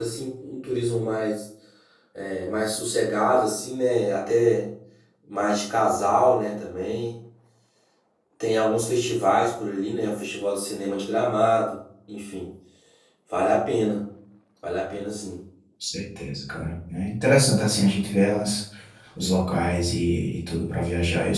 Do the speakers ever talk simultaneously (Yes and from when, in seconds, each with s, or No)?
No